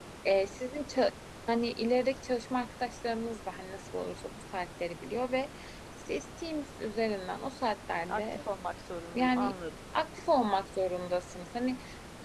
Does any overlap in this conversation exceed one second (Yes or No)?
No